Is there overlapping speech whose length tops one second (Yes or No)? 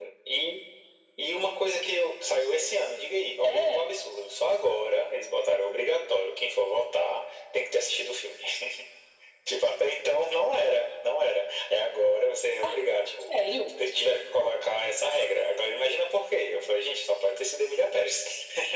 No